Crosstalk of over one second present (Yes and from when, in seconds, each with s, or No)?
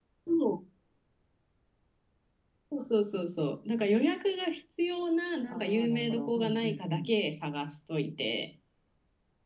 Yes, from 5.5 s